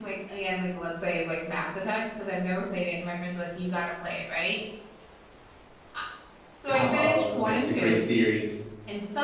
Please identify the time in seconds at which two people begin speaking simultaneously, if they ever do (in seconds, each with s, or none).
6.7 s